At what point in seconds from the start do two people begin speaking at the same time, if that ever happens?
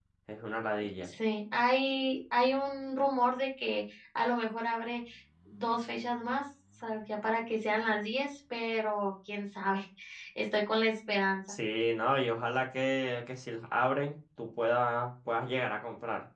none

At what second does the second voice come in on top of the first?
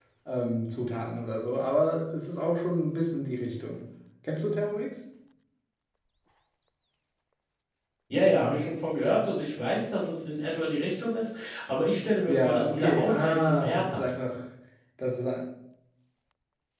12.3 s

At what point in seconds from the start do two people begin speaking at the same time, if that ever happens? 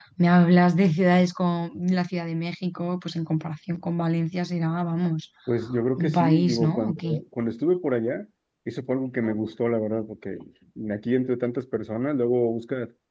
6.0 s

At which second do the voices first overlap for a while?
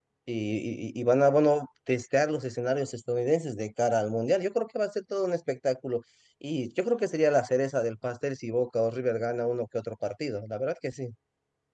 none

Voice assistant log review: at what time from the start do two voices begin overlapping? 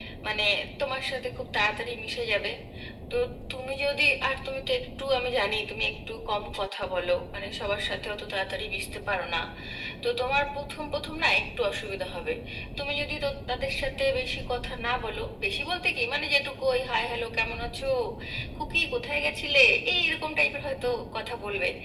none

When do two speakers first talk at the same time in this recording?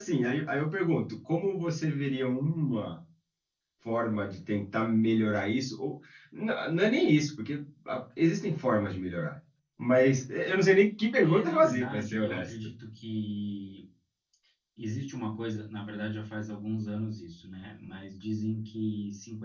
11.2 s

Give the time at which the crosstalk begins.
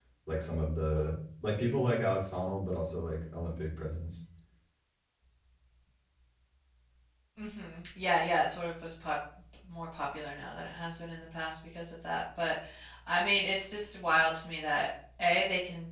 none

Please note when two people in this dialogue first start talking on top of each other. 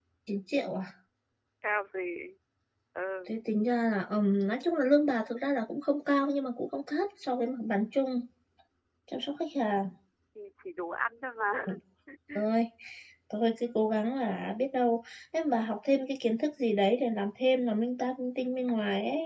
none

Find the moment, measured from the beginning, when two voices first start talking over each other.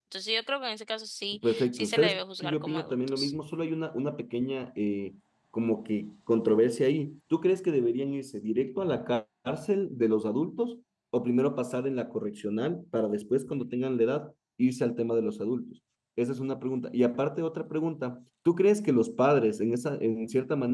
1.4 s

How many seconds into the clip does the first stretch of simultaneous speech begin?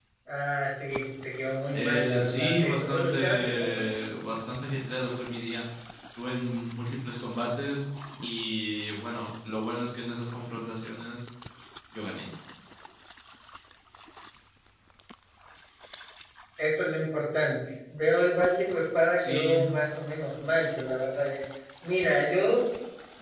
1.7 s

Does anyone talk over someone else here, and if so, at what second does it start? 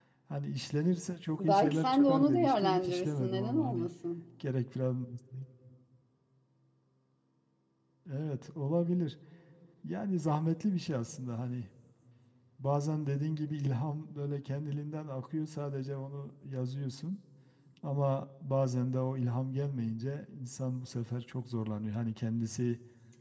1.4 s

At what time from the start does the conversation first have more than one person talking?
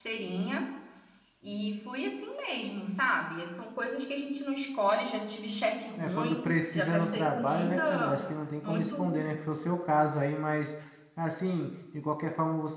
6.0 s

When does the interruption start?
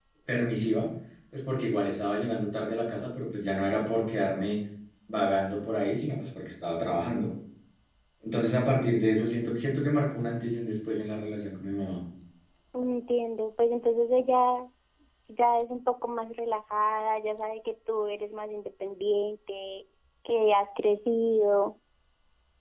none

